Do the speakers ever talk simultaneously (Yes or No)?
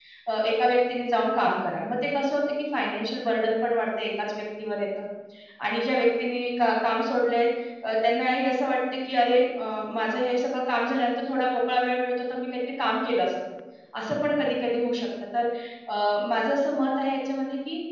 No